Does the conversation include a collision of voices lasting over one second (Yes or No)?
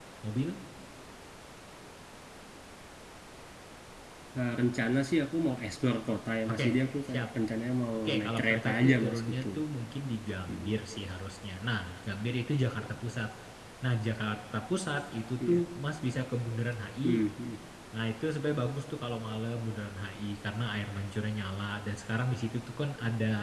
Yes